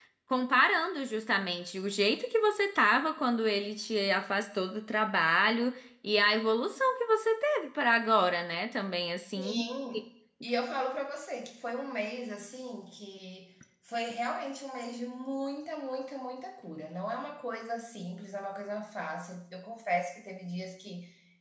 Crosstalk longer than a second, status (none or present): none